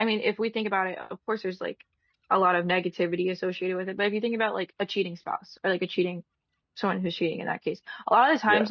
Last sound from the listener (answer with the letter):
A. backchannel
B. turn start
A